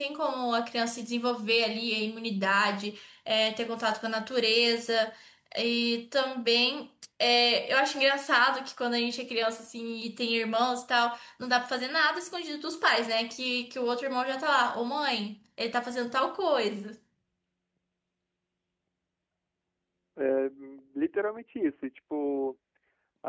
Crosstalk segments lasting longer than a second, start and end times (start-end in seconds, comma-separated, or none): none